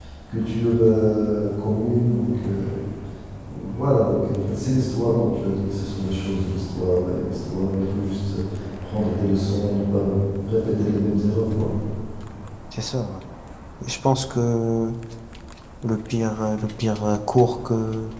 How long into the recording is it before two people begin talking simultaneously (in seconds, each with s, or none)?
none